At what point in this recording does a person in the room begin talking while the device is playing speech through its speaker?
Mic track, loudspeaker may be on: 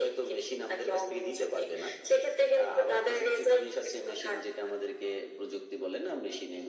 none

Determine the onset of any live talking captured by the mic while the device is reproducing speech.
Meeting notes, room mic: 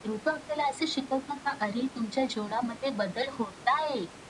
none

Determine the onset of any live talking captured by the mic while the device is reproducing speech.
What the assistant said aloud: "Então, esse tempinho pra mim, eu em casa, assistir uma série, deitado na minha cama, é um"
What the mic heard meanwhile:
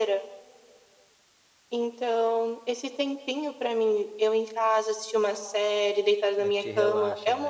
6.4 s

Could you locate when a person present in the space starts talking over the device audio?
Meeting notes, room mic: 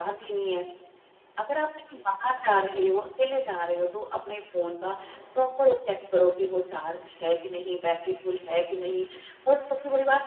none

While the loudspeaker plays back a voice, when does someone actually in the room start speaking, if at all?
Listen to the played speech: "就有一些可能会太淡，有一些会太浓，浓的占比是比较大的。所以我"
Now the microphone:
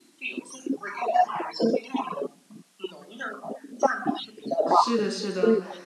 4.7 s

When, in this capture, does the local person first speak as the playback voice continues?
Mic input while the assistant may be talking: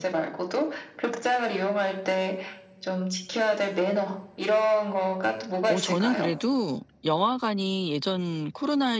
5.7 s

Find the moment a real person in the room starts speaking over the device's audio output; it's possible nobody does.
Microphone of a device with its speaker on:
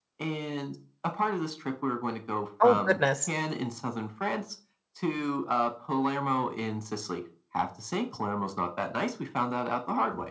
2.6 s

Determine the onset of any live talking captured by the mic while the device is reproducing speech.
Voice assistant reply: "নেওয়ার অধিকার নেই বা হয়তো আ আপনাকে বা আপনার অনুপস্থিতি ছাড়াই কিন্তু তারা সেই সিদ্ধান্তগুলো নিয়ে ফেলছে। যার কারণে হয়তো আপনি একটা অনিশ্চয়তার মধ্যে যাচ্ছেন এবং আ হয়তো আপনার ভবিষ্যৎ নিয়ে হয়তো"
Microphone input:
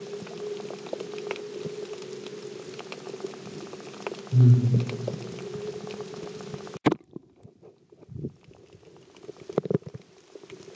4.3 s

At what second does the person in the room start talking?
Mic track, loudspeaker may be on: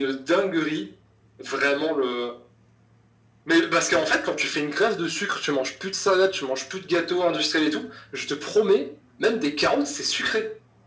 none

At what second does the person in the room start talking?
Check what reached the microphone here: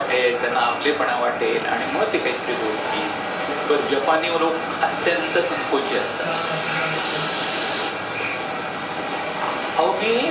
6.2 s

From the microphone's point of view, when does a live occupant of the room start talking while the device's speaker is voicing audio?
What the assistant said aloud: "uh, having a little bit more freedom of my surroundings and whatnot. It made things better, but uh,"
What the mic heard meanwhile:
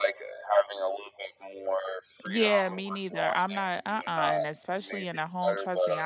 2.2 s

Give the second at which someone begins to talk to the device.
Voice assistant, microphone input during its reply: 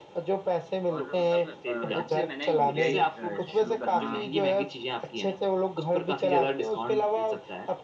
0.9 s

